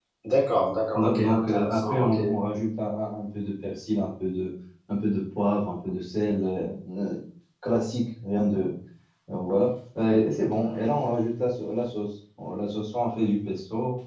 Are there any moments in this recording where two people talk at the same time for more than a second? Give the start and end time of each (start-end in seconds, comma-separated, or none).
0.9-2.2